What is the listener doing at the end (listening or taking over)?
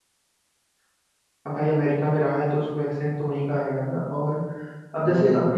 listening